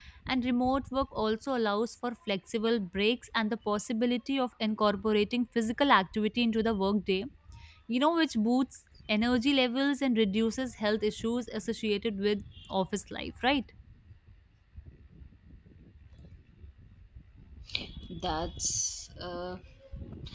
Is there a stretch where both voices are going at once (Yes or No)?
No